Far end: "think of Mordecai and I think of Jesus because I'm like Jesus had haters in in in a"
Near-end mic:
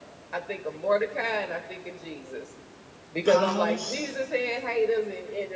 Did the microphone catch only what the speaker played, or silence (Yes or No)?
No